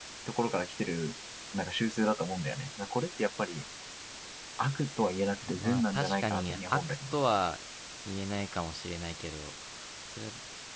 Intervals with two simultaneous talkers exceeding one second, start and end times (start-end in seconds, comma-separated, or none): 5.5-7.2